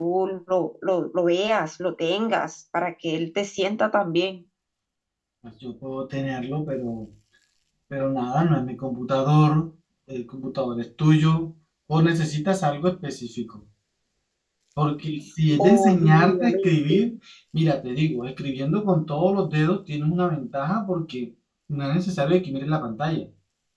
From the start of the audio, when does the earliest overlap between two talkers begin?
15.6 s

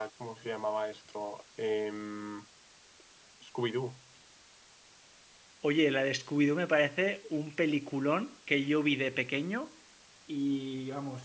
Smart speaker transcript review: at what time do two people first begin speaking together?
none

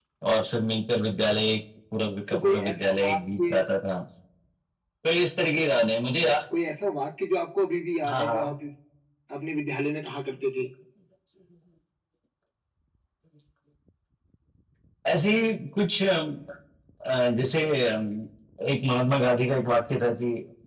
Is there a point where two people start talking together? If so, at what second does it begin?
2.3 s

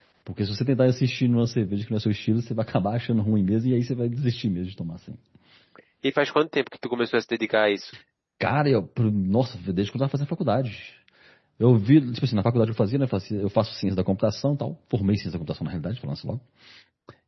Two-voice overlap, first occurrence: none

